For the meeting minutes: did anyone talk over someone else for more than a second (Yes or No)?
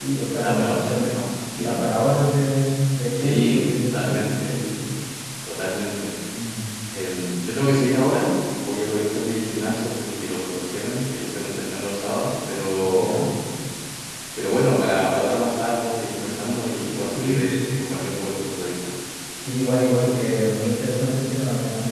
Yes